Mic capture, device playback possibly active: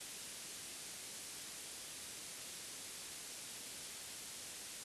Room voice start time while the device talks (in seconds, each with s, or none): none